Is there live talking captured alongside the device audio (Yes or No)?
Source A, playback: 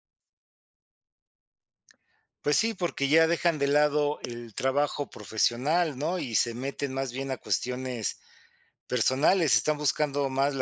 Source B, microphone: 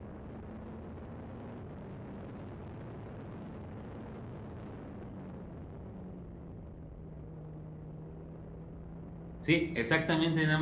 Yes